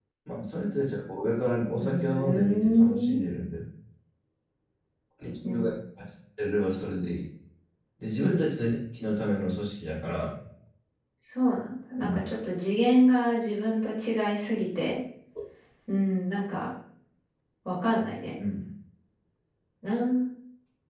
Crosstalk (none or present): present